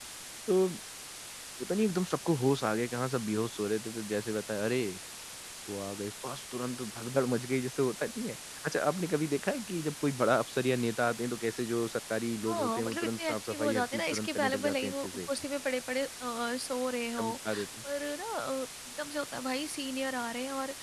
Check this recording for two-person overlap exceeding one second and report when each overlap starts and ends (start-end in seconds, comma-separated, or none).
12.5-15.3